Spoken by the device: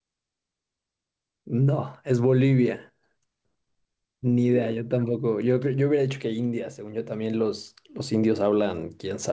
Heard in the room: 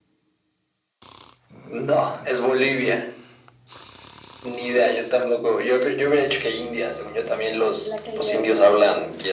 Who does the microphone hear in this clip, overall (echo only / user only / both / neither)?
both